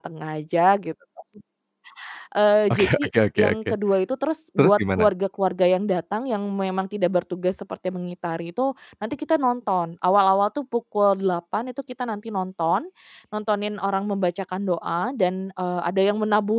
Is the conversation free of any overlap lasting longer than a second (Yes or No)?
Yes